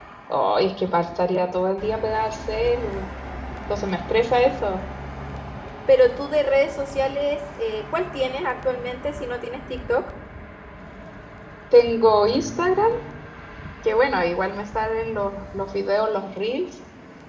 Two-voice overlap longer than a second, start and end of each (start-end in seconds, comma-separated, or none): none